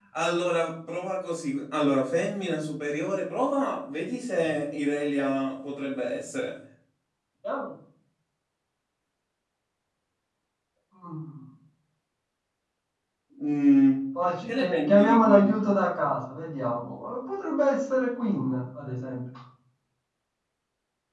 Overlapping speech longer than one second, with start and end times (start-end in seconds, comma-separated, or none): 14.5-15.7